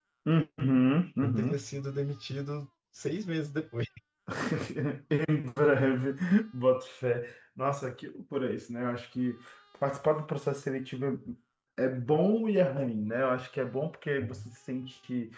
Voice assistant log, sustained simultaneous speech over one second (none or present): none